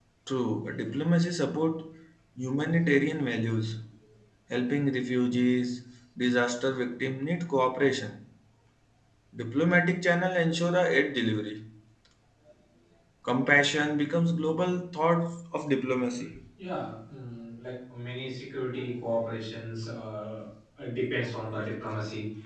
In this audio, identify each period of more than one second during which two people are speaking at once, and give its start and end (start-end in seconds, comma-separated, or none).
none